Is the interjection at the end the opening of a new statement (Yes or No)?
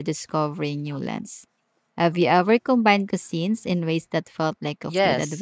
Yes